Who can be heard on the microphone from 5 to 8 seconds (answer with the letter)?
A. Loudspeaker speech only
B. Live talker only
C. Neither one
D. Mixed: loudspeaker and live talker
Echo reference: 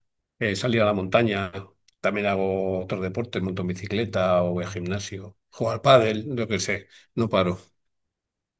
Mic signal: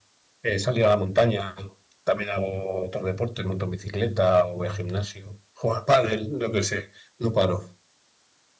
A